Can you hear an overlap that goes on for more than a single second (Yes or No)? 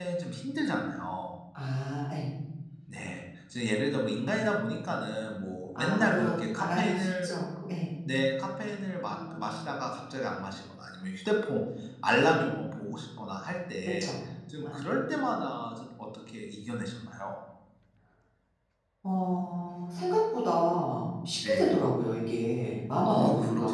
Yes